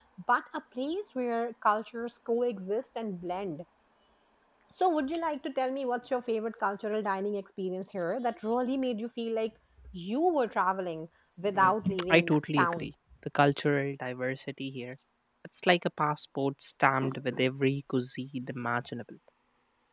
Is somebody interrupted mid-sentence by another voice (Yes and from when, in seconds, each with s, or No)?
Yes, from 11.4 s